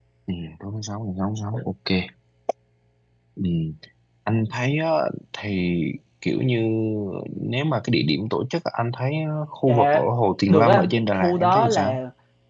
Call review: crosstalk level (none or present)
present